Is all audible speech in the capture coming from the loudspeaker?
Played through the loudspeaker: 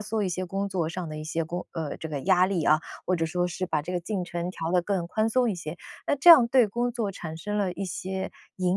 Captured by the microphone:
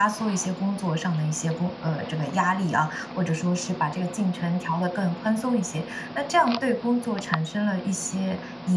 Yes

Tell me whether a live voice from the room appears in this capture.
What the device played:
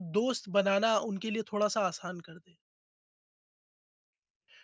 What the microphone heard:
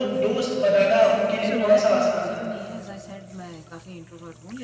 Yes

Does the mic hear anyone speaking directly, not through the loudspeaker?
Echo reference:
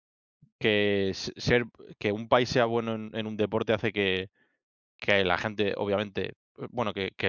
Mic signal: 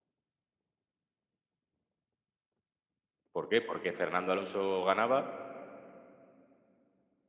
Yes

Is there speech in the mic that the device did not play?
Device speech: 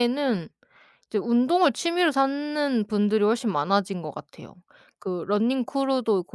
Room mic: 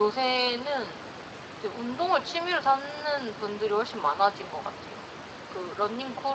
No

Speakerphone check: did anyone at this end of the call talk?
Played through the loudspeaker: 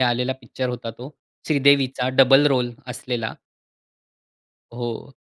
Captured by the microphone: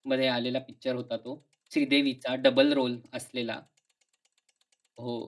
No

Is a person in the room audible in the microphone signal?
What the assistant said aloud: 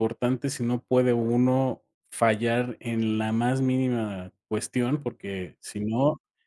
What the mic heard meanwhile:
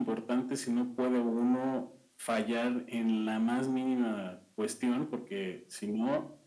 No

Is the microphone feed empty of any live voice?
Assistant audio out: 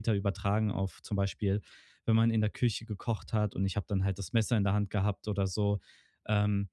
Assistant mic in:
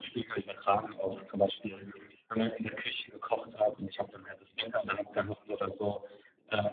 Yes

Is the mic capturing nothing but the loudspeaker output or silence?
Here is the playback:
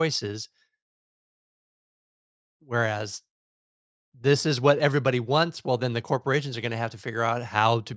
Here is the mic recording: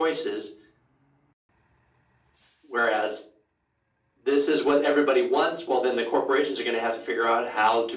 Yes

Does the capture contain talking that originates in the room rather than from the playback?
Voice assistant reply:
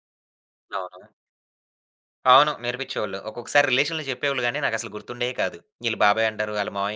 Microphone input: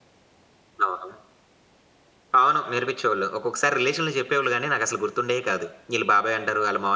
No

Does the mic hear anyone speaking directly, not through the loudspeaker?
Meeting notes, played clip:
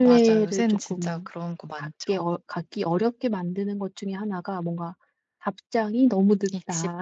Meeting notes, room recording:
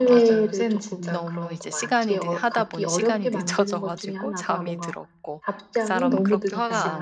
Yes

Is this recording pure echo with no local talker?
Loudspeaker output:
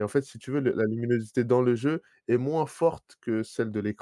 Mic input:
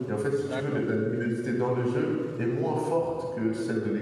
No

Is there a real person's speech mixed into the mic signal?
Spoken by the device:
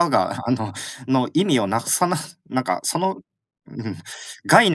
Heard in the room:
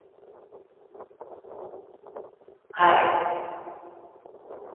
Yes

